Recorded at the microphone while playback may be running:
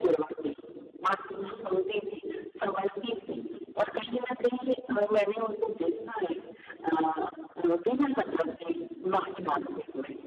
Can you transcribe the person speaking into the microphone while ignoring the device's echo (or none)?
हुँ, हुँ।